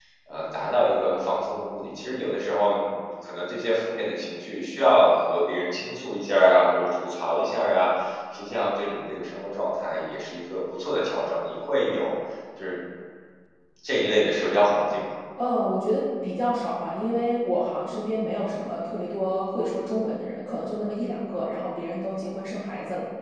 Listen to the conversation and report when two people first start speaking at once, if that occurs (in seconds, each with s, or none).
none